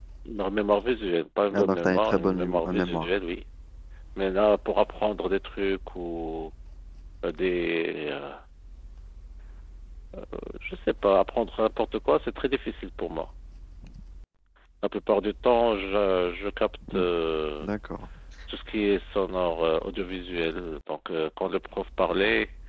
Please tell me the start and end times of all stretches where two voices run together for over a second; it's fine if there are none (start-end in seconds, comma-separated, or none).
1.5-3.1